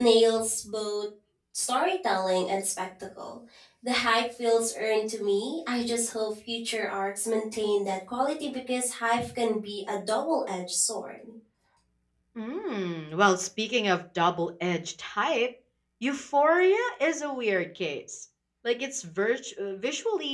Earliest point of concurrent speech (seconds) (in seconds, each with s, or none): none